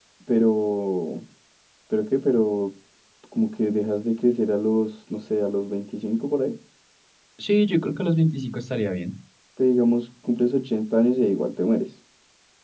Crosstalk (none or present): none